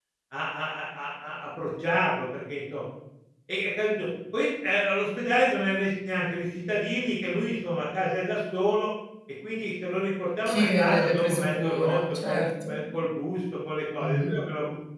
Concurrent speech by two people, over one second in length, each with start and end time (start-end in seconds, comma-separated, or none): 10.4-12.7